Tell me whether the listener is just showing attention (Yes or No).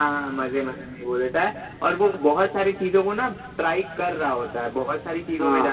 Yes